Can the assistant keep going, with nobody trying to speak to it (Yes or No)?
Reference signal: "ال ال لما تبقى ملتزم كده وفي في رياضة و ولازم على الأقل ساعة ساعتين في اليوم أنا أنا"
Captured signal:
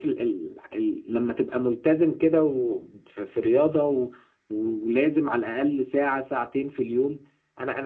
Yes